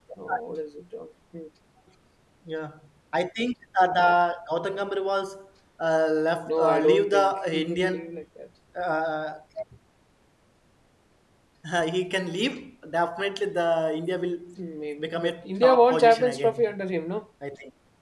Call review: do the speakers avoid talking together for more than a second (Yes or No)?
No